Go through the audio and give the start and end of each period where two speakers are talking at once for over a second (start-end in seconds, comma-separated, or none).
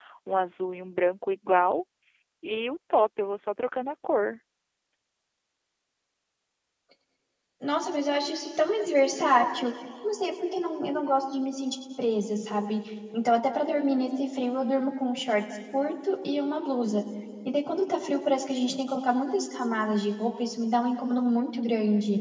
none